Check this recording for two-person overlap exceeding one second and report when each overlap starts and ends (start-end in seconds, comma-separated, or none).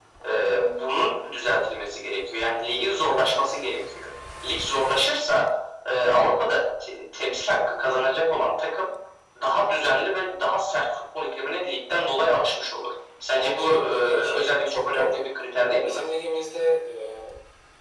13.3-15.3